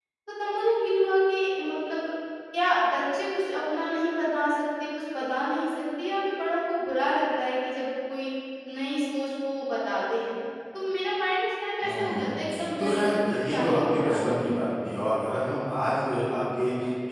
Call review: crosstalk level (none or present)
present